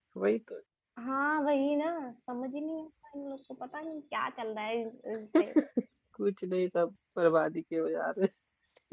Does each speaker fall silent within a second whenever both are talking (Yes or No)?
Yes